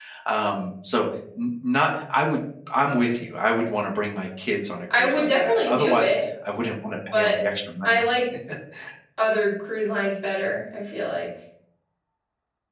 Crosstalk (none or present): present